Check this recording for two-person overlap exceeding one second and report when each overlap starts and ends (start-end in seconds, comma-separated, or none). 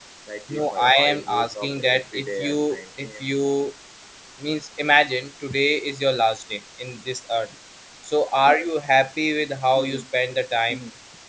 0.5-3.2